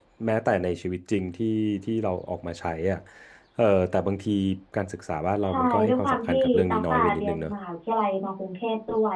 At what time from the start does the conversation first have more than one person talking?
5.4 s

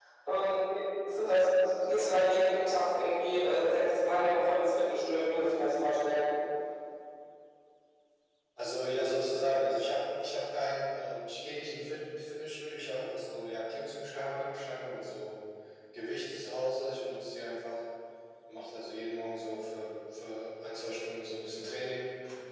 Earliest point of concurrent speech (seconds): none

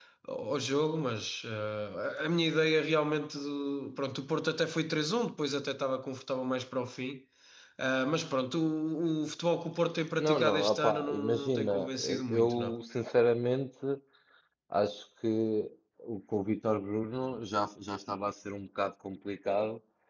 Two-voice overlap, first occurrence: 10.2 s

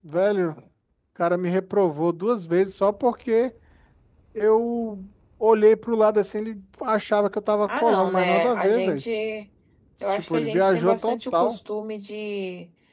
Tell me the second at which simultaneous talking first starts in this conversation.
7.7 s

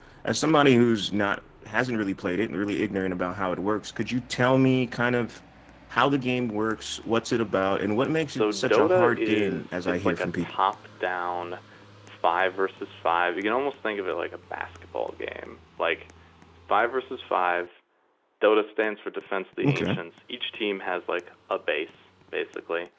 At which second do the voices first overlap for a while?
8.3 s

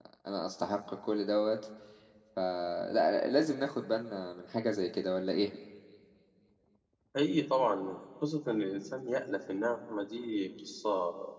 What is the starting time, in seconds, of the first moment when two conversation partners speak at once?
none

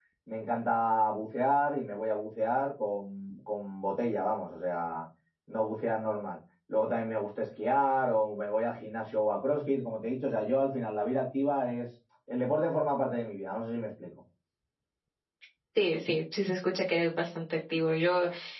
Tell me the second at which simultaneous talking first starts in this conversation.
none

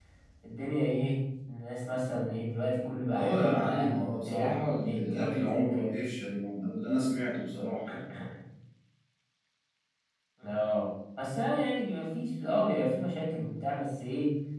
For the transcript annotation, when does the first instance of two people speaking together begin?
3.1 s

